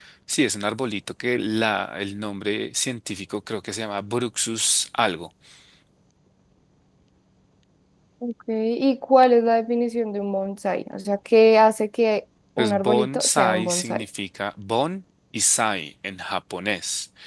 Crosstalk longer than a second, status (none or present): present